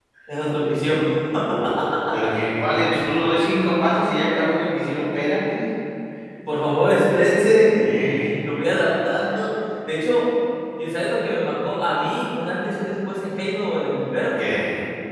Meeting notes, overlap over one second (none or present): none